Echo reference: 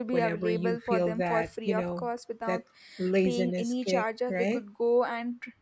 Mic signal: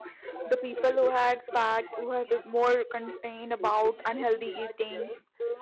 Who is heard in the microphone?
both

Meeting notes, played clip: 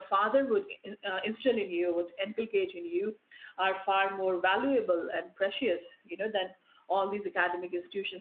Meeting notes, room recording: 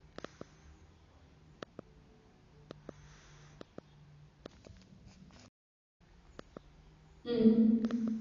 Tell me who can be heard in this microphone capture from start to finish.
user only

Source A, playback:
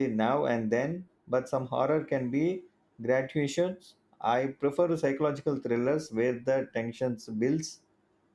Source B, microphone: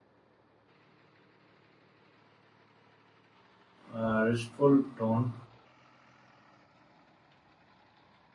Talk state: user only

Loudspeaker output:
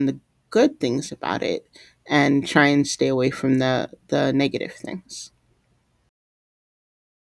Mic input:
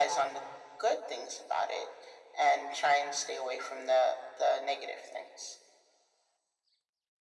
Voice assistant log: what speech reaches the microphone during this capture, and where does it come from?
echo only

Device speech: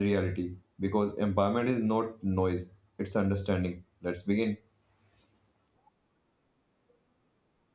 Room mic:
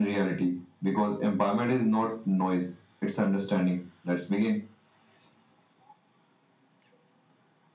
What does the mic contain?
echo only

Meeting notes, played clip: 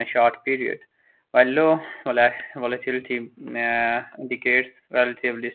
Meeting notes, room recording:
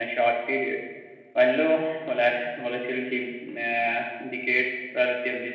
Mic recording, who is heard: echo only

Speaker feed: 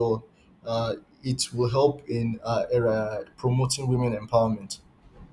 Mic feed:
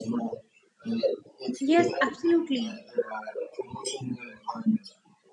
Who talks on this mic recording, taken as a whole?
both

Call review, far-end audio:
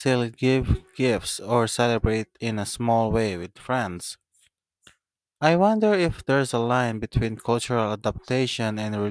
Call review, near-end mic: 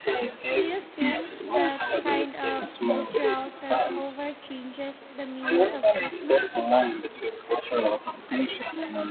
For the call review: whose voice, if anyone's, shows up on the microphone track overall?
both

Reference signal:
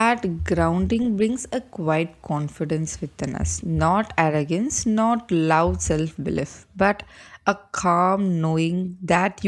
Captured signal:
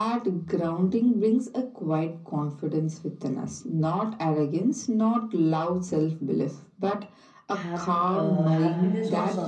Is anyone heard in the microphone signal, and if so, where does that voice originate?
both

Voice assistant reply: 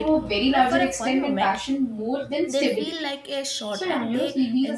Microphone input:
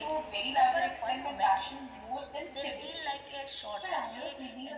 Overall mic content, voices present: echo only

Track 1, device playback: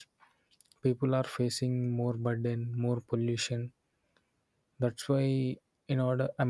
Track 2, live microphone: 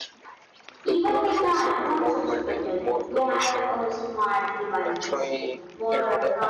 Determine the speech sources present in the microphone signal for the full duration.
both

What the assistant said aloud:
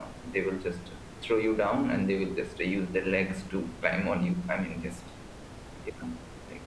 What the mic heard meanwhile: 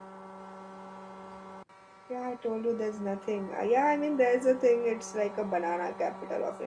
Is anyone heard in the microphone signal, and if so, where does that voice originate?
user only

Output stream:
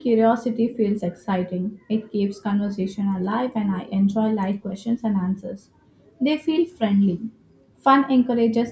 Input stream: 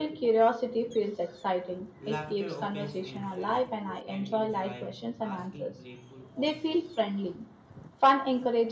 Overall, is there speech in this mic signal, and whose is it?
both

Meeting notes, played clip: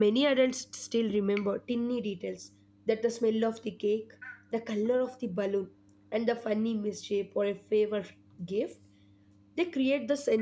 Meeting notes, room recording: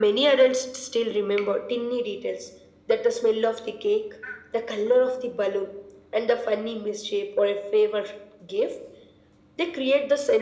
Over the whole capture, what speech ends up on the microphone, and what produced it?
echo only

